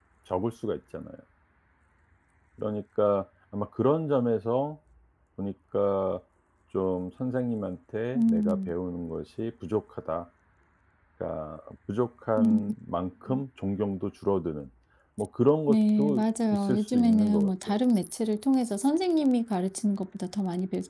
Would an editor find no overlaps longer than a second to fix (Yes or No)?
No